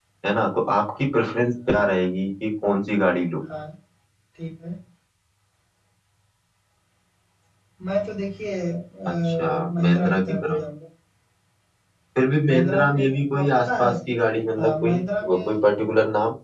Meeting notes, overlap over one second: present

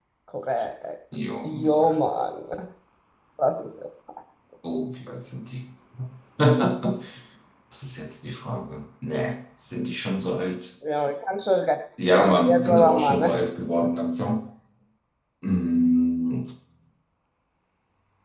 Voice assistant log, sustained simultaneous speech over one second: present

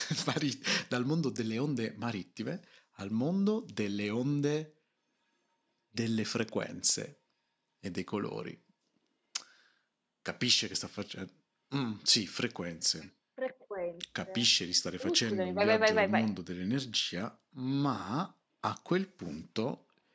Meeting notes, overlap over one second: present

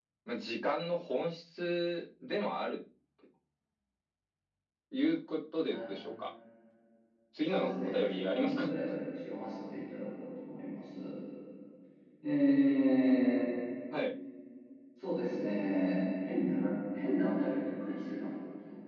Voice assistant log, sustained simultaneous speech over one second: present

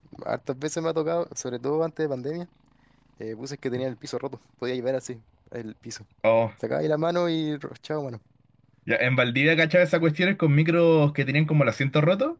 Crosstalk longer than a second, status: none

